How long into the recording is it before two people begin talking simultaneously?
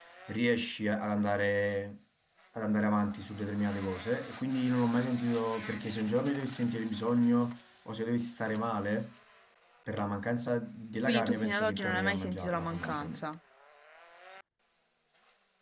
11.1 s

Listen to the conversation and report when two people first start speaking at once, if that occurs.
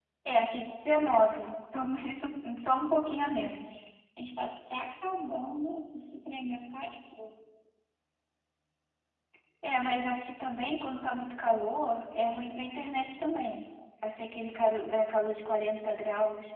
none

